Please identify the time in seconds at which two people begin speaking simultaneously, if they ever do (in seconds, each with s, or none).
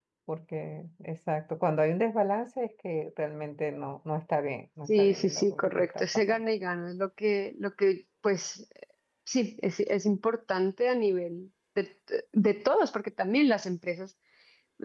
4.9 s